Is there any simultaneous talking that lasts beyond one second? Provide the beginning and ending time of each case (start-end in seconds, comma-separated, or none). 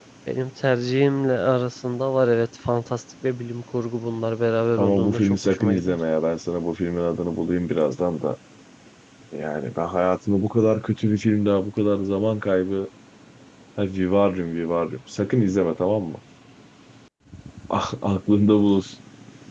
4.8-6.0